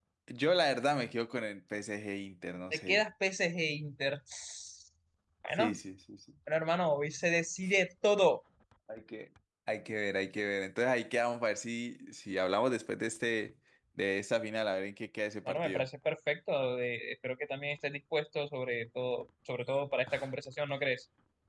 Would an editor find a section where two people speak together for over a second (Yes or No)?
No